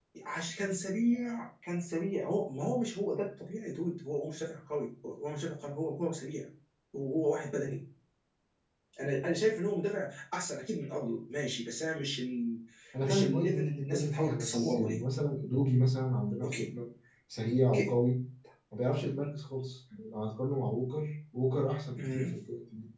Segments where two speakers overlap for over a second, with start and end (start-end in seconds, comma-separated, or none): 13.0-15.0